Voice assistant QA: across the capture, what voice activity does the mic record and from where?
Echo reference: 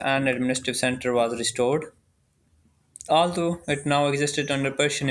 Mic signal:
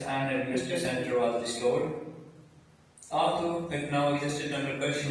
both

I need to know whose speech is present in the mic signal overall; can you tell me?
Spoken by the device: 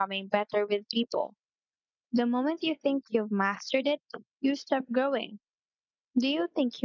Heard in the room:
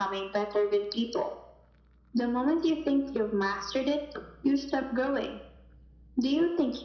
echo only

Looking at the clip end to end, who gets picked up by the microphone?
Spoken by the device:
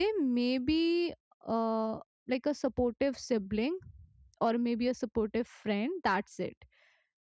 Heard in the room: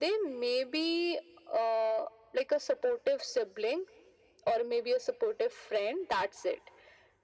echo only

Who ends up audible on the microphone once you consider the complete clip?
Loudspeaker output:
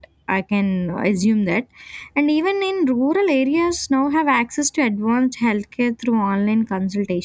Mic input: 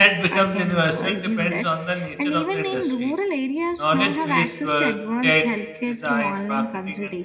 both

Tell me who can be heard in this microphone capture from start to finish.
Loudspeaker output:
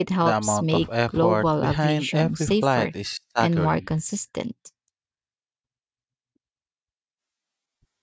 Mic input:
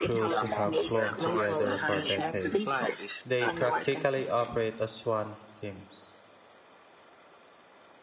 both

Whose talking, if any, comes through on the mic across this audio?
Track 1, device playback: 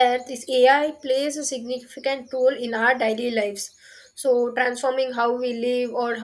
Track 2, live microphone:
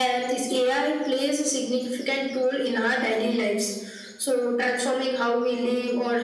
echo only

